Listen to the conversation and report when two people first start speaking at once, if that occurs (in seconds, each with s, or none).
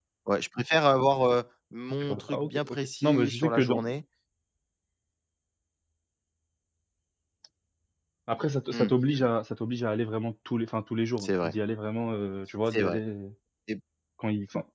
2.0 s